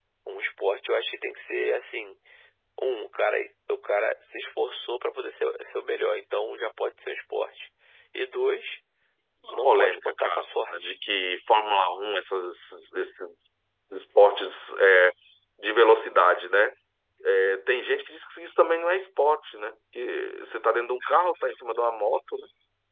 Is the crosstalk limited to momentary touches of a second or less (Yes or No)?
No